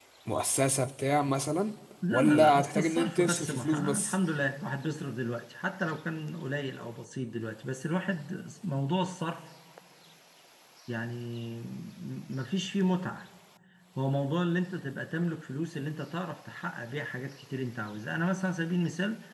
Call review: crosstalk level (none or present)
present